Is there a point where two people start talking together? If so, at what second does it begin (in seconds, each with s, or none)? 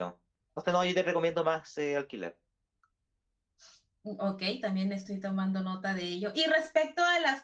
none